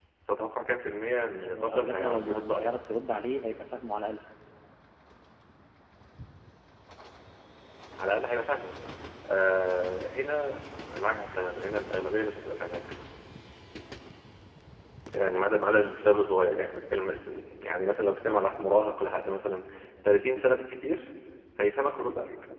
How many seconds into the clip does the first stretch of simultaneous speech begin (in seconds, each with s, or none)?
1.3 s